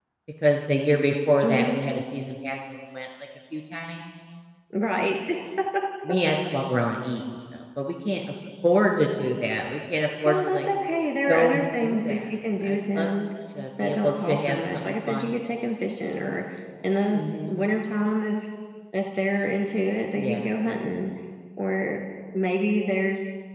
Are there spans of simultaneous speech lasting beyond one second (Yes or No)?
Yes